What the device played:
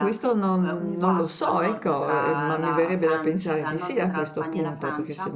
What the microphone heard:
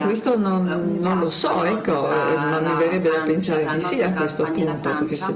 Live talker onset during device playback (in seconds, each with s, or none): none